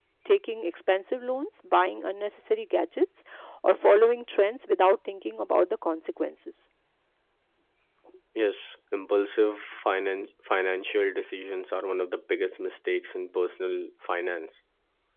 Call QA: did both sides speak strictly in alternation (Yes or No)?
Yes